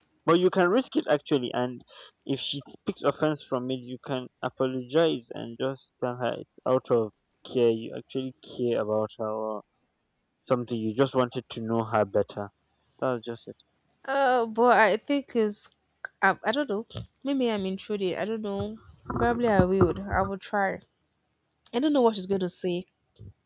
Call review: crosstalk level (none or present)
none